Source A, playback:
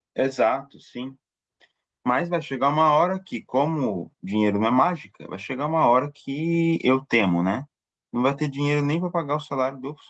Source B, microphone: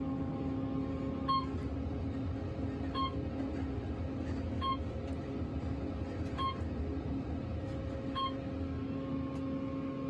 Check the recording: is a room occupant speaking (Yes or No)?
No